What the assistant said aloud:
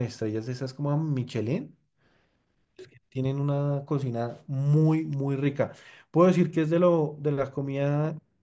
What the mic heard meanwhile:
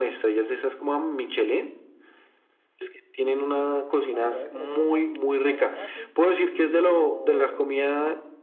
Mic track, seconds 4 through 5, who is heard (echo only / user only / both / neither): both